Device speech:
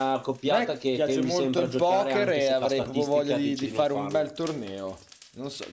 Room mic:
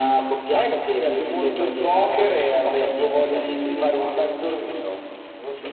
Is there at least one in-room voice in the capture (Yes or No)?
No